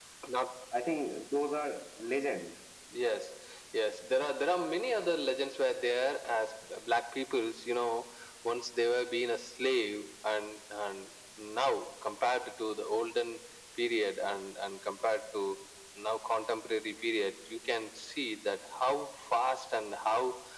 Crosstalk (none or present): none